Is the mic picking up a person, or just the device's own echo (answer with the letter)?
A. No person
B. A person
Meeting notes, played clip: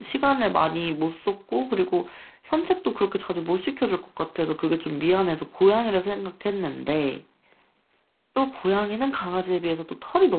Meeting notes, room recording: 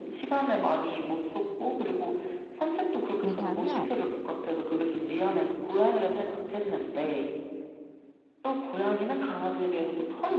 B